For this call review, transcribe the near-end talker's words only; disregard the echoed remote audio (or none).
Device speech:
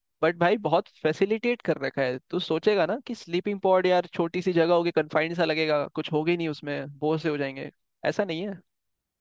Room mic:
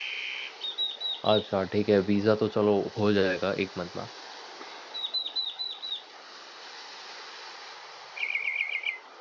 अच्छा ठीक है वीज़ा तो चलो हो जाएगा एक मंथ में